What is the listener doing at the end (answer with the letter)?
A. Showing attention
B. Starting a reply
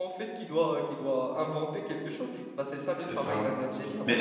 B